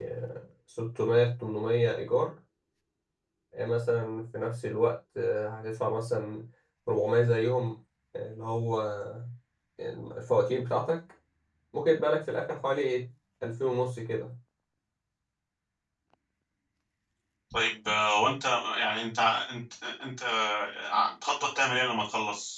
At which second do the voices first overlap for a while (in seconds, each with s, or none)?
none